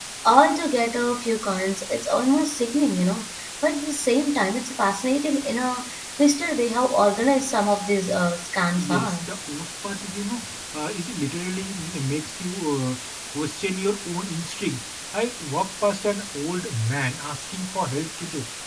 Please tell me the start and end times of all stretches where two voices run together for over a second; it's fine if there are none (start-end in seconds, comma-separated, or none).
none